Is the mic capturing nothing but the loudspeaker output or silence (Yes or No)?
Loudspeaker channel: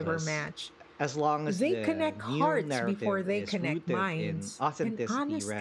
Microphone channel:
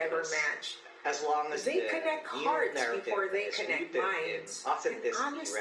Yes